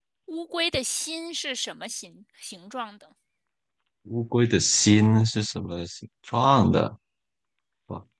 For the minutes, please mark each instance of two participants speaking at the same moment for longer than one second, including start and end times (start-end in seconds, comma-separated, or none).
none